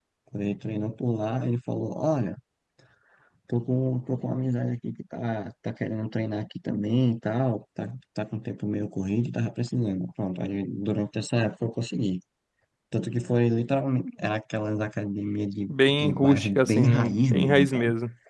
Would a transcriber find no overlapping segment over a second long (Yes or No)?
No